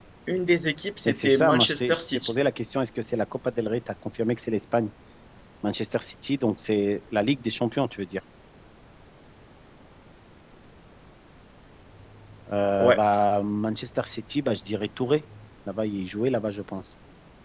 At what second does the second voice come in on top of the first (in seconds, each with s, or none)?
1.1 s